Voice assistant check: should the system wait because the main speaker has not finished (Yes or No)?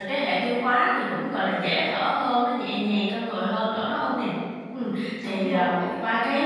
Yes